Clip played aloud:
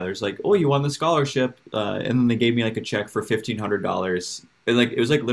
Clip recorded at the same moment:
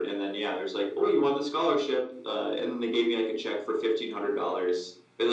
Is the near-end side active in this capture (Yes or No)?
No